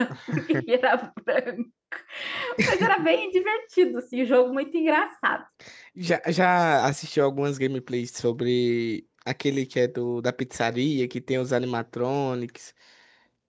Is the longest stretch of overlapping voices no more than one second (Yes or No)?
Yes